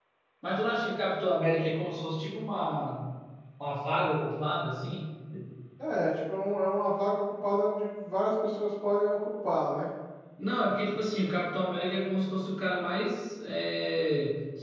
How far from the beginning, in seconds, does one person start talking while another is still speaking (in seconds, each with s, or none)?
none